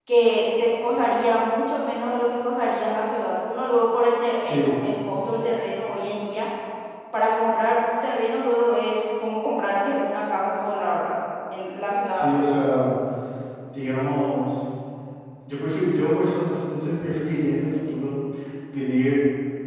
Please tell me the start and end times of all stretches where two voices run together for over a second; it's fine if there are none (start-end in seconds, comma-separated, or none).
none